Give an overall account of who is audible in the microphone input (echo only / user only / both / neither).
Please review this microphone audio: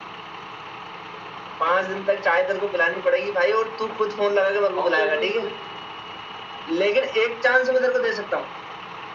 both